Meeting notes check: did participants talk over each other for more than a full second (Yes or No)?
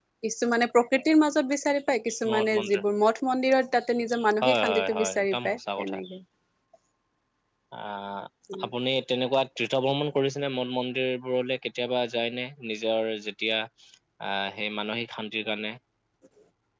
Yes